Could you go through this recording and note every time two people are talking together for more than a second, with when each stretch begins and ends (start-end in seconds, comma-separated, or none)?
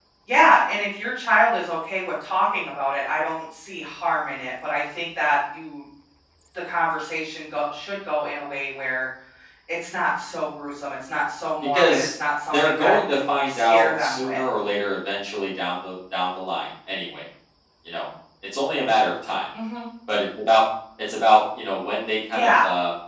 12.5-14.4